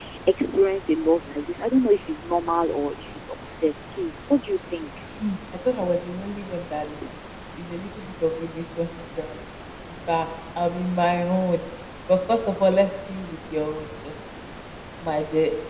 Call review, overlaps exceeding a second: none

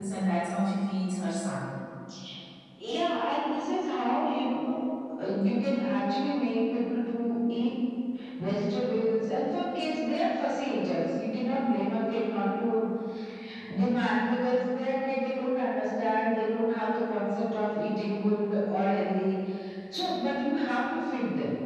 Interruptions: none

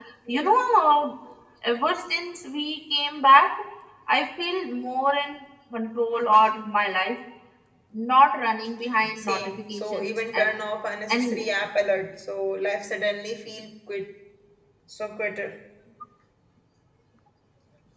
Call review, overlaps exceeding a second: present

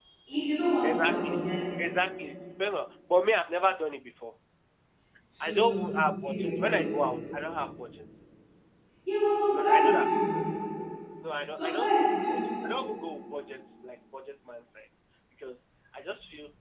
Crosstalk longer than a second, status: present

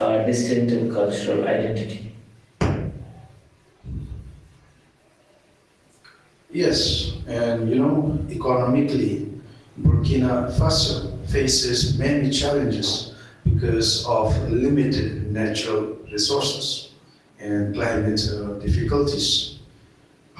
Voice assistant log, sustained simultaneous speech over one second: none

